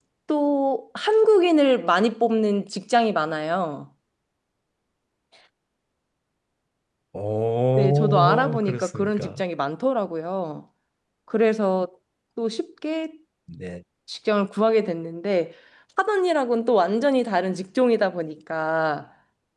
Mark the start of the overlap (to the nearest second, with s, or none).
8 s